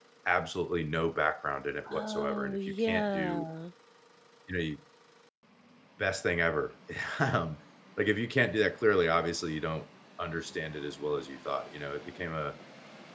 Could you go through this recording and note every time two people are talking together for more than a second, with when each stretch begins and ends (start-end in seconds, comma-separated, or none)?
1.9-3.5